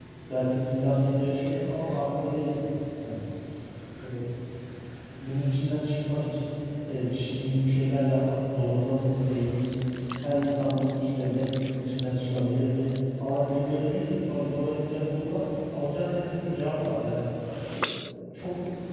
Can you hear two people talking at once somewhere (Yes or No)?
No